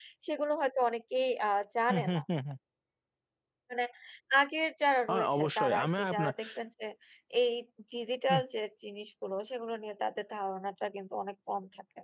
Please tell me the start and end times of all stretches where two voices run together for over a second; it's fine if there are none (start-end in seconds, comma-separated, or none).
5.1-6.3